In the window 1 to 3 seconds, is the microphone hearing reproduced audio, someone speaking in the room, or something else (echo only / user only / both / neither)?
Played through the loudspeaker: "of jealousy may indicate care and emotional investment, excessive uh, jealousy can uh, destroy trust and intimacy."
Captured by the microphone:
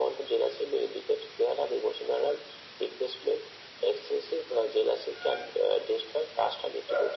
echo only